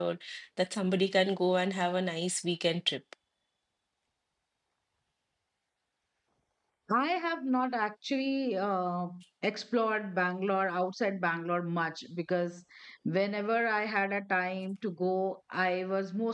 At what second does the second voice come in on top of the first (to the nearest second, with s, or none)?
none